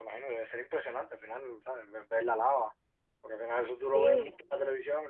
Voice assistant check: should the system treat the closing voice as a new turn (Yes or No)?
No